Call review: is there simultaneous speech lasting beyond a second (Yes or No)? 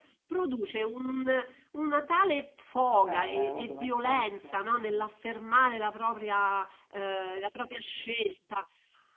Yes